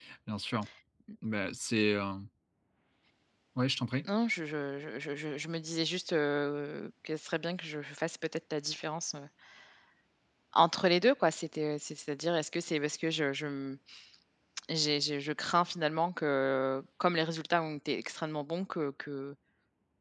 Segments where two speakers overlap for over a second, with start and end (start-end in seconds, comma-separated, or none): none